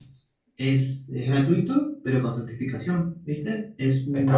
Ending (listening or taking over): taking over